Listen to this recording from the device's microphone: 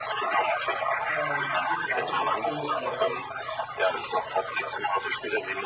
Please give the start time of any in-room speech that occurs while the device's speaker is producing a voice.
1 s

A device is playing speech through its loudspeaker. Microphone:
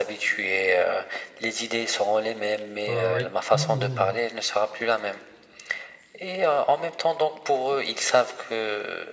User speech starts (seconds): 3 s

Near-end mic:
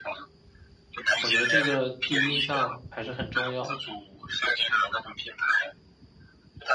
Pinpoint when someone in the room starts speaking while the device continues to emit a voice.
1 s

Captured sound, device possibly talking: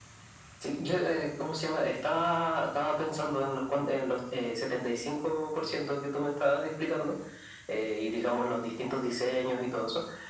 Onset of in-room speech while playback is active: none

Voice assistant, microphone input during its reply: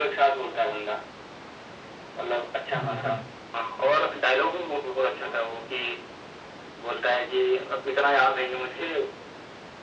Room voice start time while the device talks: 3 s

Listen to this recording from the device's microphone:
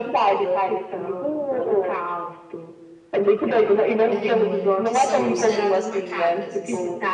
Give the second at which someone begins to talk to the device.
4 s

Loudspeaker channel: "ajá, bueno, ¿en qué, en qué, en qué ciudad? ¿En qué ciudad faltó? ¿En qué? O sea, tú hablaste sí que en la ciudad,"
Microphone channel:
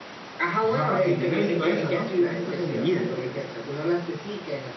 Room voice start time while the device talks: 1 s

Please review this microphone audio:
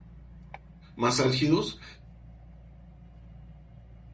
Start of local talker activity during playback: 1 s

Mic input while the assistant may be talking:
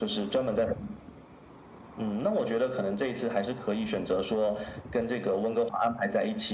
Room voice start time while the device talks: none

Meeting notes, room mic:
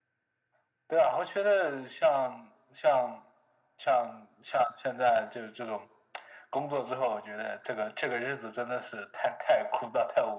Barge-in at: none

